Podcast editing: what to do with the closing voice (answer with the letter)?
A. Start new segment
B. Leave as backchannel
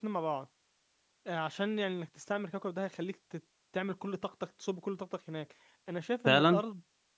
B